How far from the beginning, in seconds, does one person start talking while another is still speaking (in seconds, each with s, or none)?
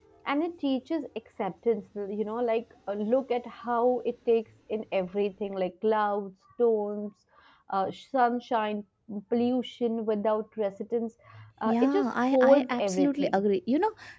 11.6 s